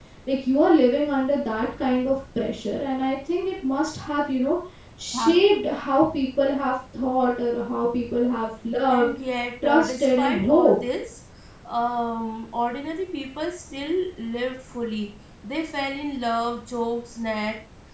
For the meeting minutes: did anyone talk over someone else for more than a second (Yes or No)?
Yes